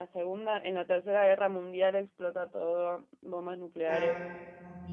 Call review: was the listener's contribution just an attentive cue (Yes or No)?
No